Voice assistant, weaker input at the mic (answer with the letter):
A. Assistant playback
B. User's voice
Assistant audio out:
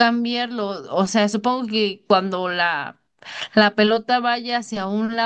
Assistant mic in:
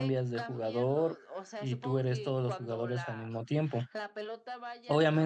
A